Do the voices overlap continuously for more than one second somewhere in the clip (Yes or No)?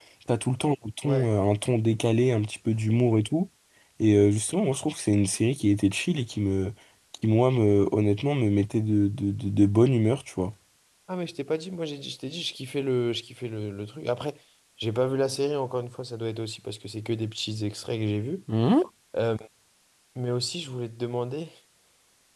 No